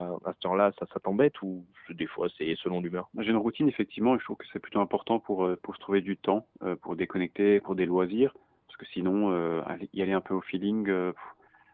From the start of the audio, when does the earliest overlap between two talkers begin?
none

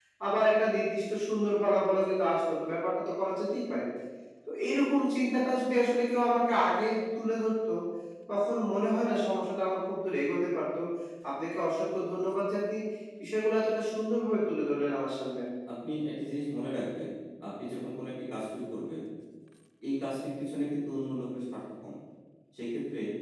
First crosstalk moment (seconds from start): none

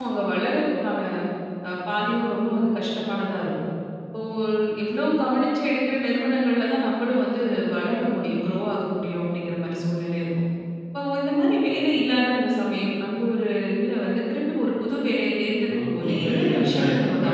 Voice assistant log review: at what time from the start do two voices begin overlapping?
15.7 s

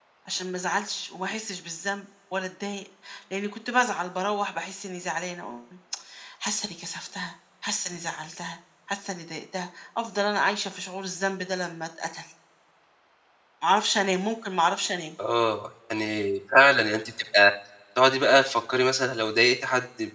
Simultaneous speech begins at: none

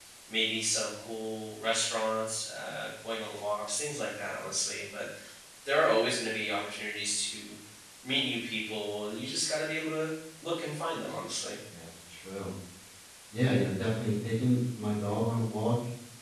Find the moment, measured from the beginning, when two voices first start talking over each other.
none

